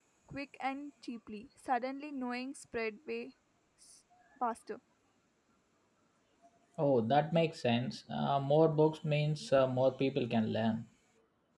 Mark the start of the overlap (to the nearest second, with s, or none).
none